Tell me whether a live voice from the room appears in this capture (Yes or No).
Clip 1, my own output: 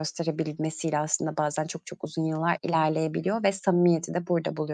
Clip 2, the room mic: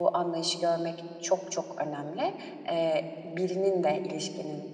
Yes